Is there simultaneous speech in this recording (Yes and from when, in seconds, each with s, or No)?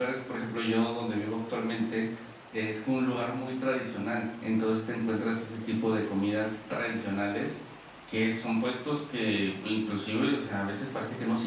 No